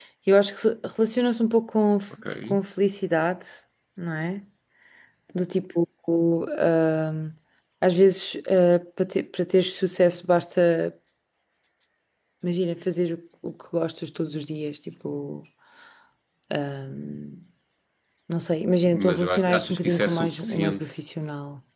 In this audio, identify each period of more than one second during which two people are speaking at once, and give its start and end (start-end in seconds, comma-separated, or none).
18.8-21.0